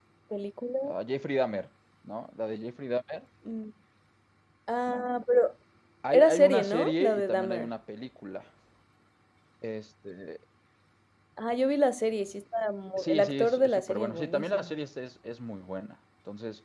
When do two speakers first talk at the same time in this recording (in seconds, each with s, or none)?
6.1 s